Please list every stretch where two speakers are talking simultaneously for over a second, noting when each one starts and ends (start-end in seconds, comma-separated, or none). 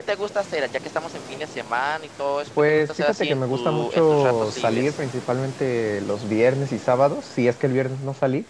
2.7-5.0